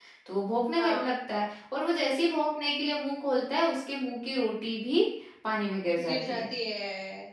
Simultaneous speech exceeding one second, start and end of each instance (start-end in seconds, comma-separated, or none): none